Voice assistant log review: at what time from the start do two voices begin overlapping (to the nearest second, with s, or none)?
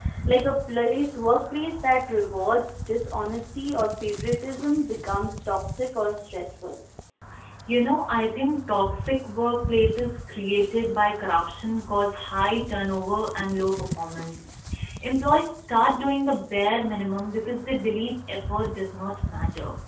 none